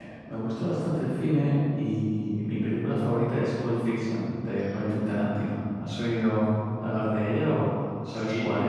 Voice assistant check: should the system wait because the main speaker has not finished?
No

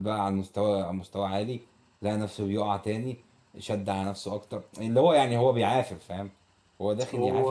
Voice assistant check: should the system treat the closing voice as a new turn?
No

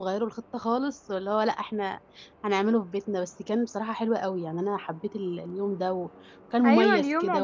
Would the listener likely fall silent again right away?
No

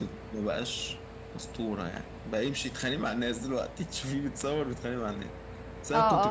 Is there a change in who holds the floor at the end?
Yes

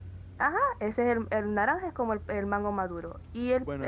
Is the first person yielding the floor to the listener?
Yes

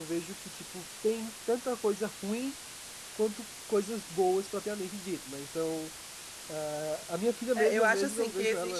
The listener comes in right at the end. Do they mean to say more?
Yes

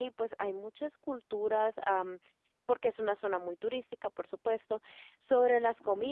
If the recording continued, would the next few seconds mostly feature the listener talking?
No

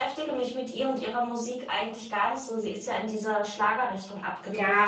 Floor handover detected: Yes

